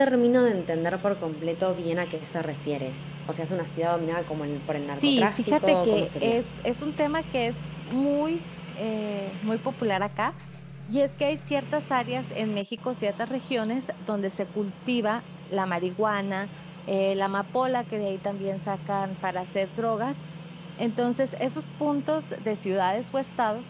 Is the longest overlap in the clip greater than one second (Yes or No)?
Yes